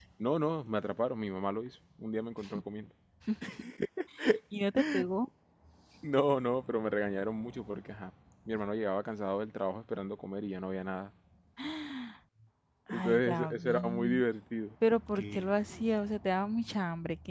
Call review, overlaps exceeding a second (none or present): present